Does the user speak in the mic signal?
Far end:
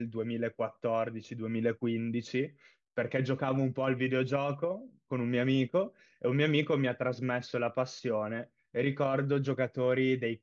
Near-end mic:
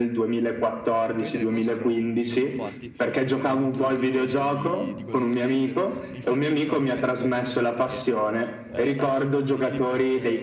Yes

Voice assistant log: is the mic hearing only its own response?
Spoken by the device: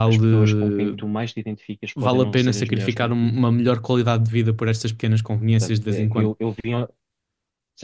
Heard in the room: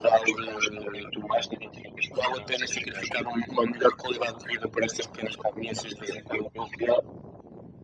Yes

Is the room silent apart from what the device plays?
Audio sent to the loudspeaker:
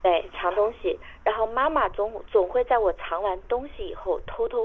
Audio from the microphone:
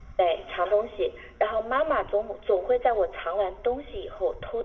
Yes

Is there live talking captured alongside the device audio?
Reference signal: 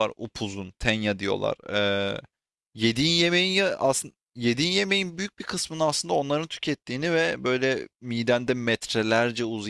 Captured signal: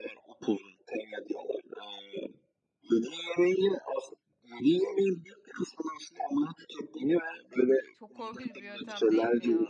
Yes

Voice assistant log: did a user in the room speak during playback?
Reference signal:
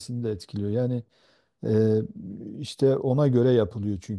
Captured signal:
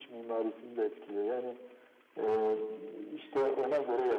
No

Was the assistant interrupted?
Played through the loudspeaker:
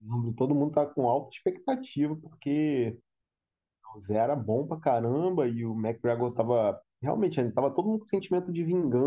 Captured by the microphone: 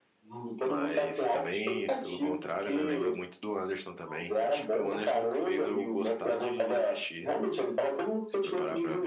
Yes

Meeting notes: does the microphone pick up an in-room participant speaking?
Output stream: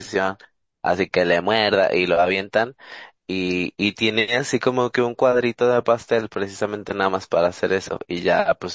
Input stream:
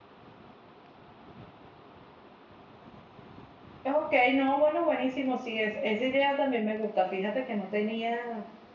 Yes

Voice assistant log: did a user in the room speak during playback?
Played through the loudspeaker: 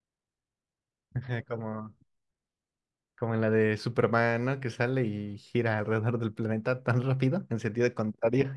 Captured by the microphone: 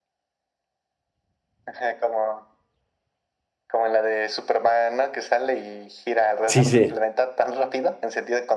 Yes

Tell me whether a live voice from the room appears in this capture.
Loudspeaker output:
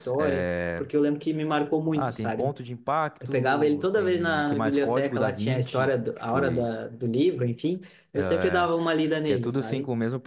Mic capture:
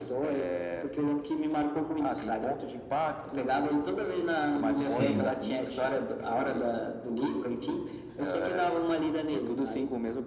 Yes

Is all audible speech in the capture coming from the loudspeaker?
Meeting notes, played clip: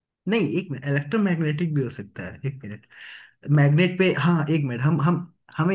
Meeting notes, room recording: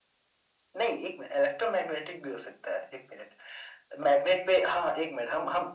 Yes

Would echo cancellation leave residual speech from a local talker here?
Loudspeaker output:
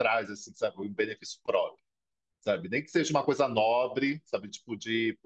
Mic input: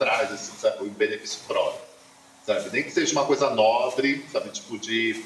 No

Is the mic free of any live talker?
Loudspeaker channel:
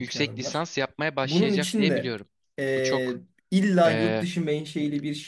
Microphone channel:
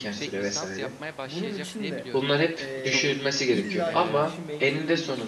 No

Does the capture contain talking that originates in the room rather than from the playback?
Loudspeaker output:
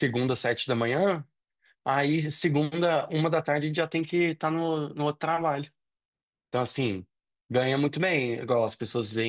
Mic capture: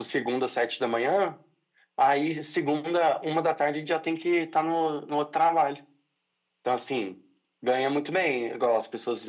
No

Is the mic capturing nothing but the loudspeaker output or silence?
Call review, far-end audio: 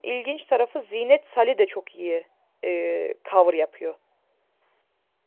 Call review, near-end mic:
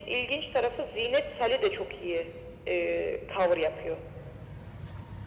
Yes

